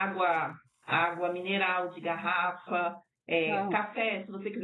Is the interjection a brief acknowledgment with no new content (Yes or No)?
Yes